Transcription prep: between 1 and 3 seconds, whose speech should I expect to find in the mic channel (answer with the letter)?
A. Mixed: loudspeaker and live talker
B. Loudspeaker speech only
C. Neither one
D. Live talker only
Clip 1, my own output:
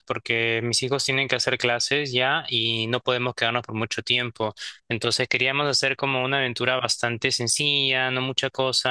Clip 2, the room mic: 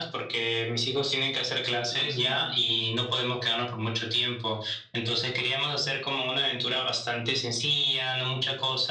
A